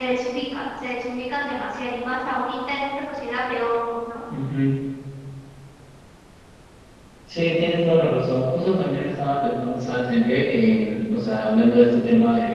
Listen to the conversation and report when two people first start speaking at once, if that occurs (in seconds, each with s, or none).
none